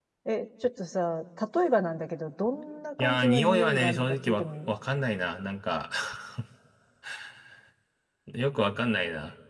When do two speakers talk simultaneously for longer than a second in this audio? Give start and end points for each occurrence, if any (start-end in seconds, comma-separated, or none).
3.0-4.7